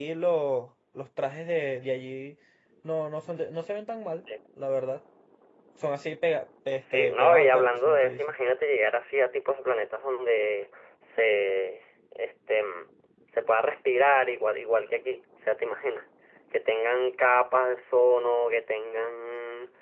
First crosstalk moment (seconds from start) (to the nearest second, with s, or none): 7 s